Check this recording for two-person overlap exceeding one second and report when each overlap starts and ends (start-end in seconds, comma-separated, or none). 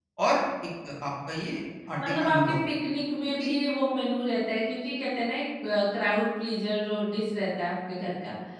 none